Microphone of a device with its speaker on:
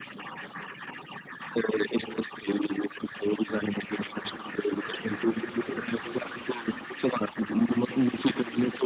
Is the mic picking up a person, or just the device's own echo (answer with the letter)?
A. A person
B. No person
B